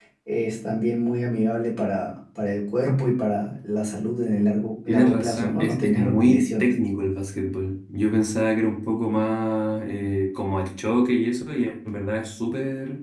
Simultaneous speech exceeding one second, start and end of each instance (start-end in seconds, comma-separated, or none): 4.9-6.7